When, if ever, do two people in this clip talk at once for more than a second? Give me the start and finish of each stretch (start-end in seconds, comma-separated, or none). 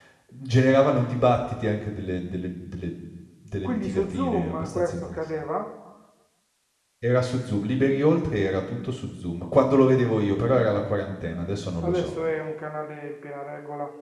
3.6-5.4